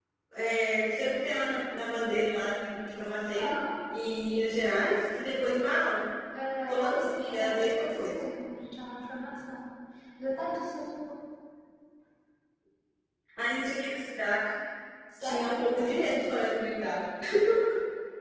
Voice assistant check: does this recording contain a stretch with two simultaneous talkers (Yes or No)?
Yes